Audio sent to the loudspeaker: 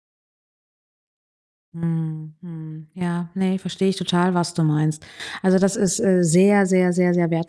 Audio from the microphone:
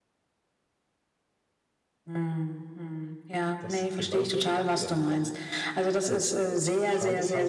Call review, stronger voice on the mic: echo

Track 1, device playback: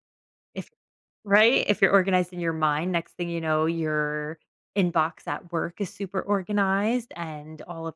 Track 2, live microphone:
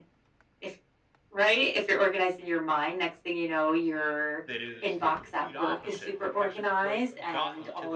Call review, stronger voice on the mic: echo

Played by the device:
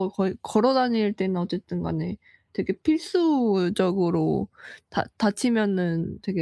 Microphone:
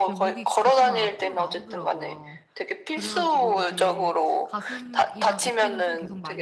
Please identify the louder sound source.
echo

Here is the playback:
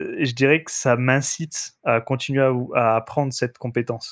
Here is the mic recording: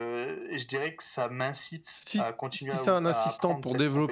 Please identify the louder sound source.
user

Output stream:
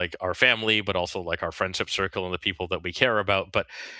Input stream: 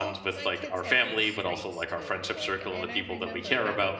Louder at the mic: echo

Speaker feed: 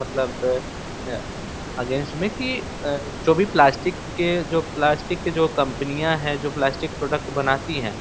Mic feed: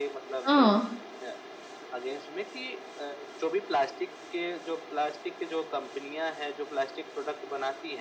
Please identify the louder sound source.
user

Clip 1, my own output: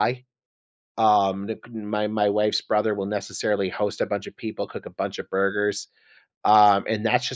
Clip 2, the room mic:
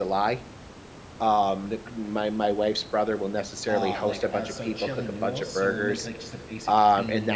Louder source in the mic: echo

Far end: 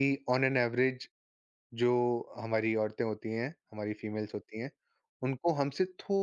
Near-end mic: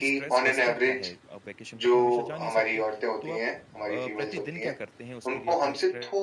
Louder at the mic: echo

